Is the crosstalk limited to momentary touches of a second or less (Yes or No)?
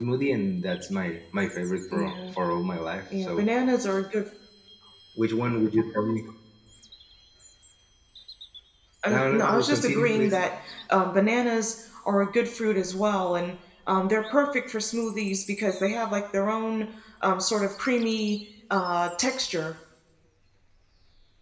No